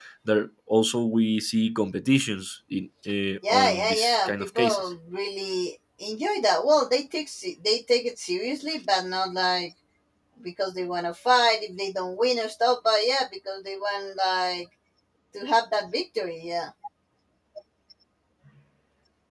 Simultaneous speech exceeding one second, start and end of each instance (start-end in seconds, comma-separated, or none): 3.5-4.9